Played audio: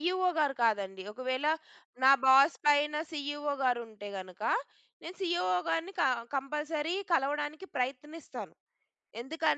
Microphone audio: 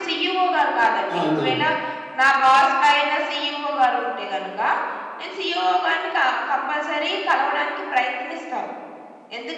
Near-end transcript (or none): అవునవును.